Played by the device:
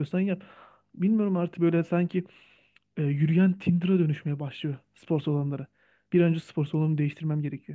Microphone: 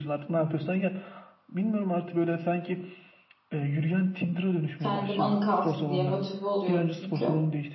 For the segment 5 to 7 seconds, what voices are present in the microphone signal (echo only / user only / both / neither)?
both